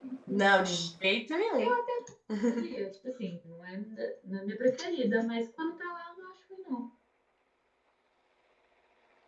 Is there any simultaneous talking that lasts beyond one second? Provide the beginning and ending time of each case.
none

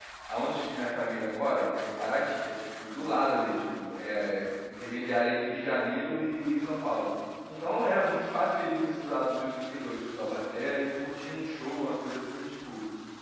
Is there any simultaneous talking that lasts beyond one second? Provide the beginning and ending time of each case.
none

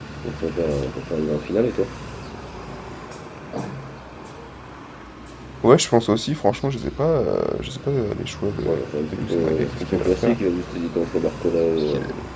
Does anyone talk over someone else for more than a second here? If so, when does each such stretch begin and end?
9.1-10.4

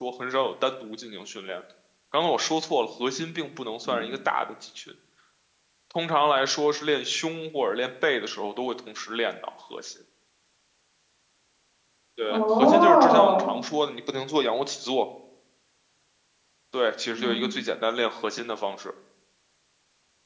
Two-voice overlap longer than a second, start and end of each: 12.3-13.5

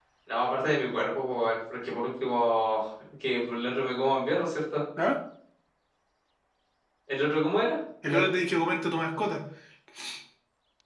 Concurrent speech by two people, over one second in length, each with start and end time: none

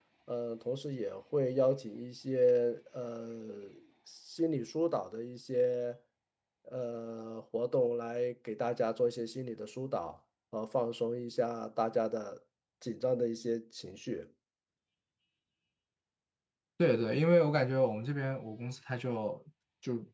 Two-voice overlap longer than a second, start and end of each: none

